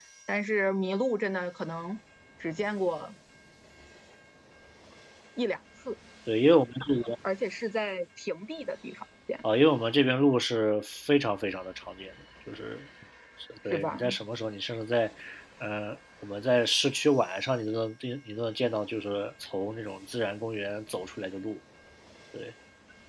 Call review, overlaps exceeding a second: none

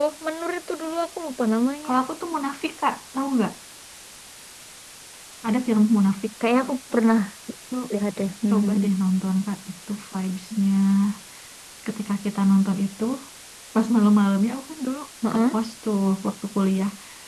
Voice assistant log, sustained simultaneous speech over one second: none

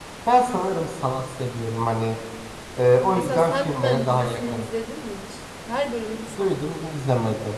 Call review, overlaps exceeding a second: present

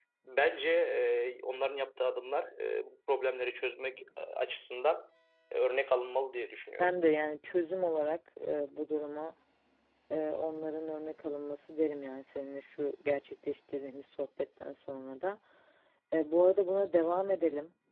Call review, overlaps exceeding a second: none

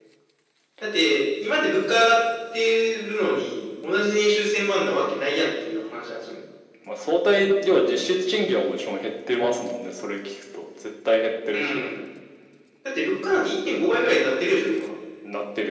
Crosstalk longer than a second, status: none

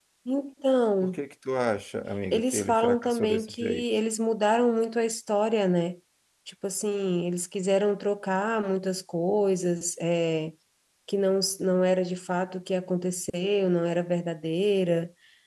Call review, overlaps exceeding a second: present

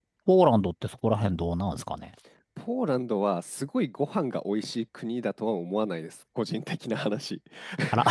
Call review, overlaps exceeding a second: none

